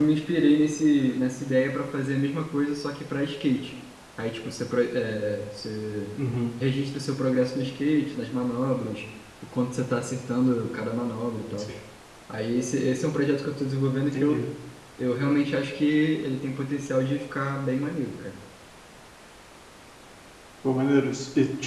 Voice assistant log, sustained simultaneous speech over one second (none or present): none